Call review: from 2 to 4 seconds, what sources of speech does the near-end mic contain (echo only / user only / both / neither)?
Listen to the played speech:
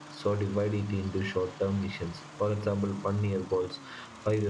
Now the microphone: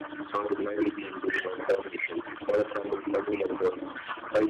echo only